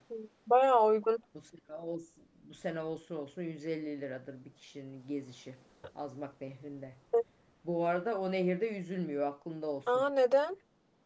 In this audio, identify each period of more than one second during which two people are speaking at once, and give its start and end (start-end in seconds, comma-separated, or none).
none